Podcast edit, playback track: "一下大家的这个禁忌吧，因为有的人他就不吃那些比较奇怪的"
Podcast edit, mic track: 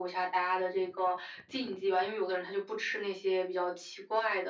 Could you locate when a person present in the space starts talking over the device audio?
none

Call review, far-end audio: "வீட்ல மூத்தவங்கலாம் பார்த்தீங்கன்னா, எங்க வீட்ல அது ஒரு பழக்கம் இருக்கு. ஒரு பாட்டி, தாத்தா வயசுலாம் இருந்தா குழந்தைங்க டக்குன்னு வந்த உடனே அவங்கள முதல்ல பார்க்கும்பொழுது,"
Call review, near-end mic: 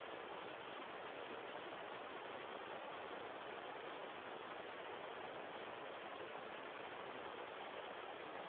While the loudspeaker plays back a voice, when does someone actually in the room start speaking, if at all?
none

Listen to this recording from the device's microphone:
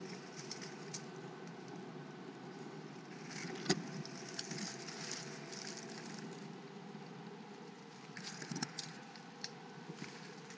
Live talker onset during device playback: none

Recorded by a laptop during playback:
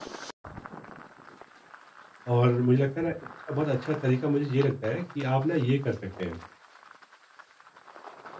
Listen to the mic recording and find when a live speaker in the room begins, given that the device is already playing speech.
2.3 s

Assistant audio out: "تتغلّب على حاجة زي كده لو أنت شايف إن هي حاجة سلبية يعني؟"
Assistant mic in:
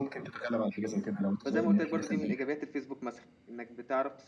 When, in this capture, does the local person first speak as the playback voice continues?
1.4 s

